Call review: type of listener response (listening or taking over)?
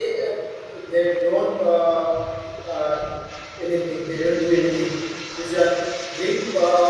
listening